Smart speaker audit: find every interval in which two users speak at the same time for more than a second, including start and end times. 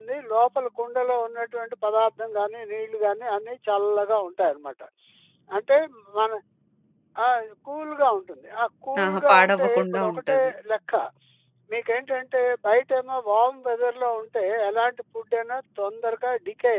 9.0-10.5

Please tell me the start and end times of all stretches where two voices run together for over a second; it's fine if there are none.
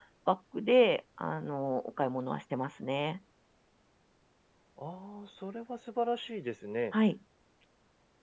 none

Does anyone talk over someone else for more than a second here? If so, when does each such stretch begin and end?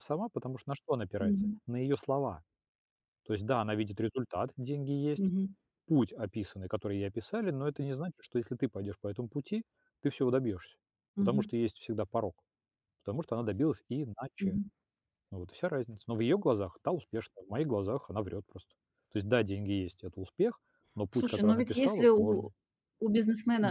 21.2-22.5

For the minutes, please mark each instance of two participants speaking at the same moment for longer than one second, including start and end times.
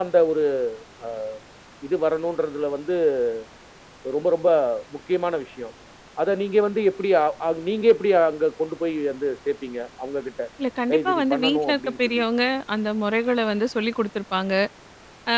10.9-12.2

